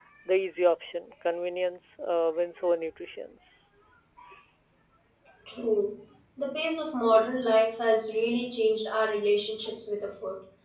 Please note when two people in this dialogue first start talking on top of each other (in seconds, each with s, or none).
none